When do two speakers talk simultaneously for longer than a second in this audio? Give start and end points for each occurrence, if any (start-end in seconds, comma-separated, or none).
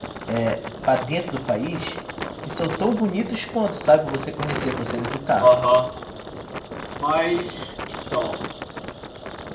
none